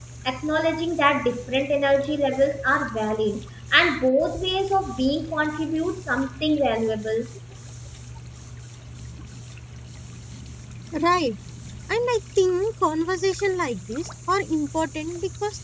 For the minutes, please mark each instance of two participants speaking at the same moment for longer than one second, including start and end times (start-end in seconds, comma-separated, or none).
none